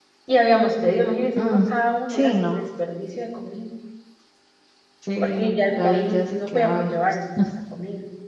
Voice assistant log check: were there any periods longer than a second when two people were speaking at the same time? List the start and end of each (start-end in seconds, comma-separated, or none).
5.2-7.0